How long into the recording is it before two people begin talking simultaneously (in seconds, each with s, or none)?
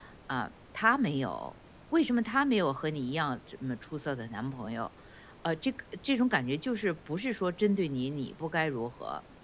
none